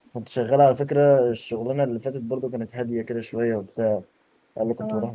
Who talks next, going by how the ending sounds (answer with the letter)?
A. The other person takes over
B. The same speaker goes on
B